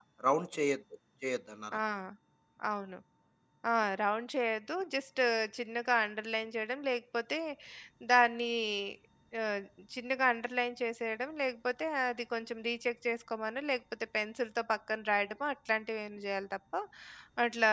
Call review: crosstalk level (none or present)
none